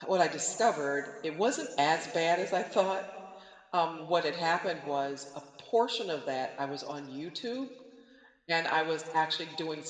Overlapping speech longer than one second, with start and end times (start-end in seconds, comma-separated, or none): none